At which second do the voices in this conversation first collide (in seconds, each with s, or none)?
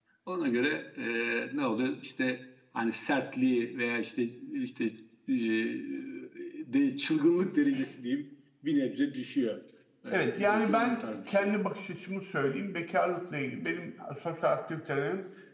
10.1 s